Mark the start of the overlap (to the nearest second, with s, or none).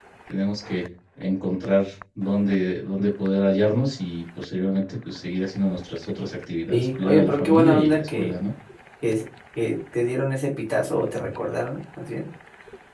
7 s